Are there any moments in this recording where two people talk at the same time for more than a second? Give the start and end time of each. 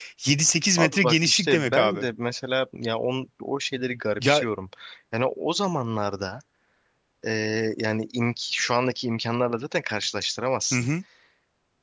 0.8-2.0

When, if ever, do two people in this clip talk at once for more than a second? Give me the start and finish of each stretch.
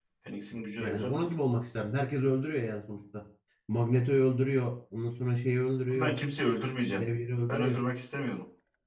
none

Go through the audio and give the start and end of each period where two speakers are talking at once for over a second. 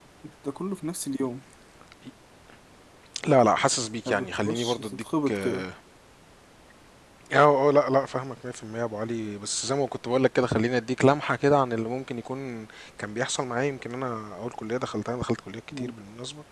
4.1-5.6

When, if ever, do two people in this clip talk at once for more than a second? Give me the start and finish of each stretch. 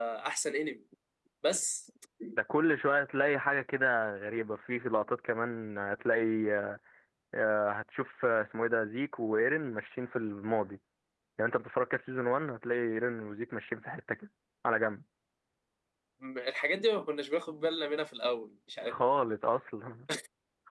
none

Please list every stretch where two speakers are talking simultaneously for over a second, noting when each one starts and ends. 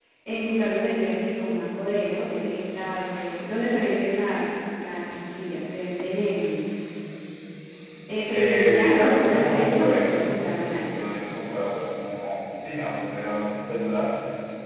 8.3-10.8

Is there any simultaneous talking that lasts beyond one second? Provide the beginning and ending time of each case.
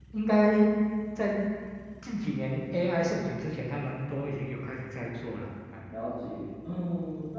none

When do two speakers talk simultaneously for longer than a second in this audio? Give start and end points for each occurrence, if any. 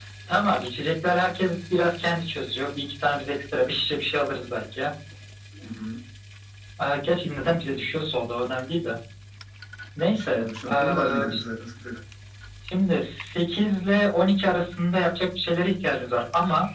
10.1-11.4

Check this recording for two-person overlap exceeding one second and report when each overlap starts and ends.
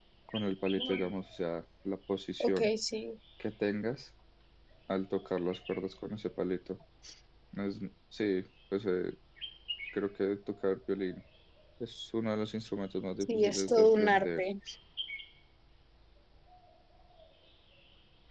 13.2-14.4

